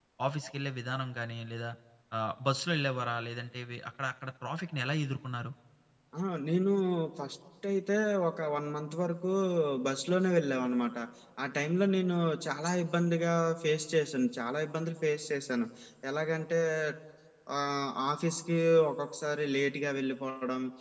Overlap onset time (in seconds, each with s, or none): none